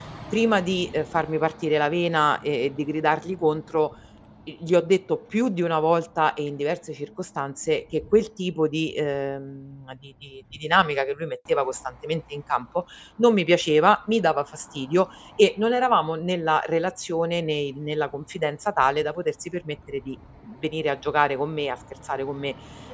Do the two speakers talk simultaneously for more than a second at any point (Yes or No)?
No